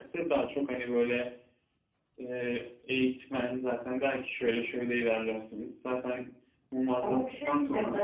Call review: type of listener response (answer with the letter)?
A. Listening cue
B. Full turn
B